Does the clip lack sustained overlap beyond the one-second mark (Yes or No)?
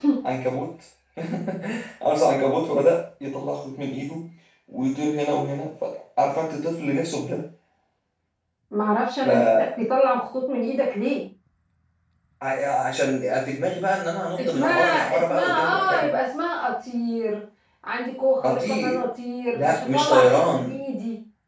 No